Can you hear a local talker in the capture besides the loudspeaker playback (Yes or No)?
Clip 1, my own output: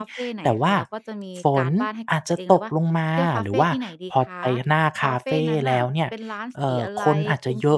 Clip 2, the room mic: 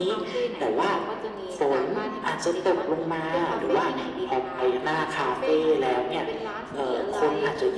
No